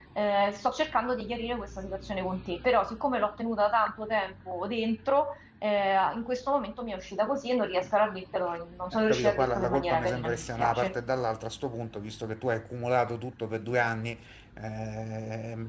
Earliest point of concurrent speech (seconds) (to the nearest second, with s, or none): 9 s